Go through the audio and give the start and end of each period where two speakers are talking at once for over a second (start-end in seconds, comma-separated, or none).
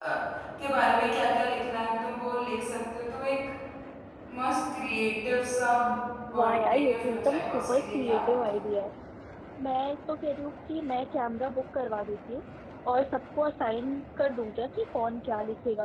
6.3-8.7